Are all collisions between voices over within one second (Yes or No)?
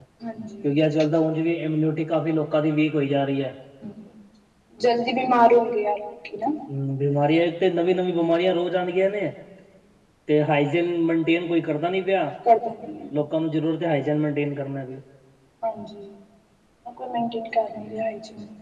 Yes